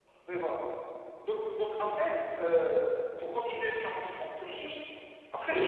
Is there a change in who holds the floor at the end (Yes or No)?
No